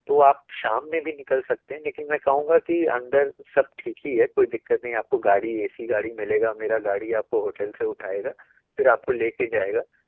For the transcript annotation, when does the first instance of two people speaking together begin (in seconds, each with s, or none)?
none